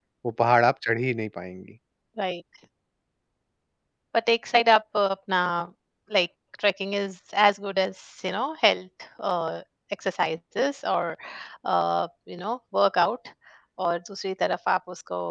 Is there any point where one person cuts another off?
No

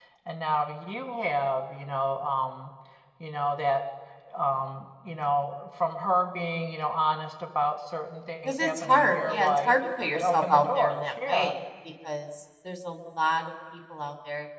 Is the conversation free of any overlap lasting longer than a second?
No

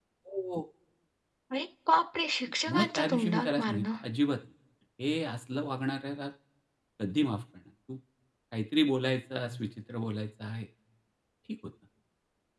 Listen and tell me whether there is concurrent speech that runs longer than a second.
Yes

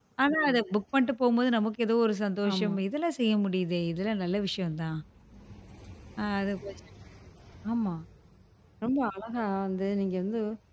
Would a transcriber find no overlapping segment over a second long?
Yes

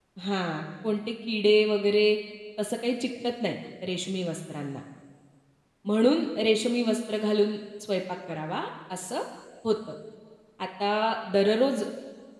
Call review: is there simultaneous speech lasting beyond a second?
No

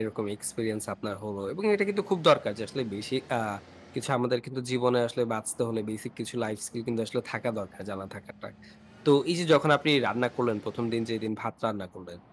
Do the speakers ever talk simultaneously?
No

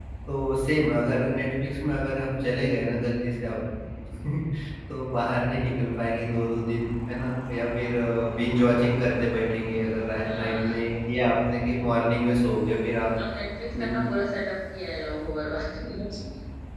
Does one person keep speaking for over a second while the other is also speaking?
No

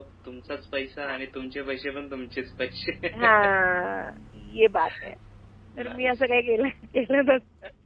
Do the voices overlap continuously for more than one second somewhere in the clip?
No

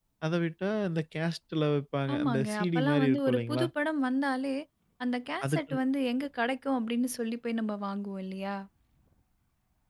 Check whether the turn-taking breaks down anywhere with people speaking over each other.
Yes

